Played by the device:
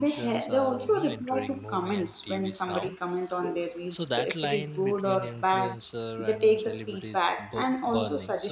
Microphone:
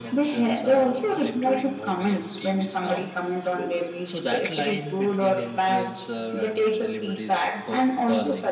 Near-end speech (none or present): none